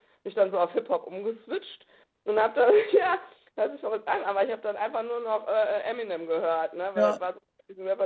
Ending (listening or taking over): listening